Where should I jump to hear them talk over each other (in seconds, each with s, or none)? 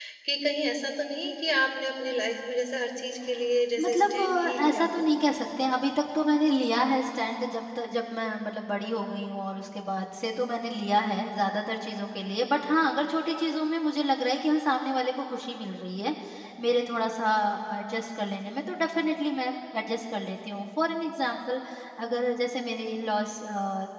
3.8 s